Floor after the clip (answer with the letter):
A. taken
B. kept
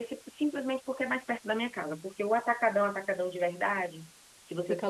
B